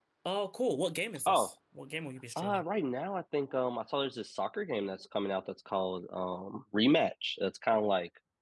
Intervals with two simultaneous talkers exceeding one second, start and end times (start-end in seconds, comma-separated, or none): none